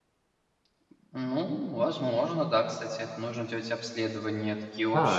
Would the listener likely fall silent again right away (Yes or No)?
No